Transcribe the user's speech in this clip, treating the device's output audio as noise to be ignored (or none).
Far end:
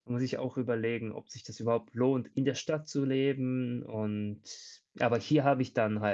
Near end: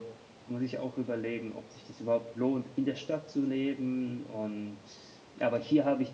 none